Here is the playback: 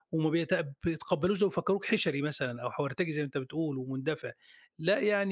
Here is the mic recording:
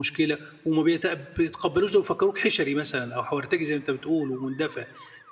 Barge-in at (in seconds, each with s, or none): none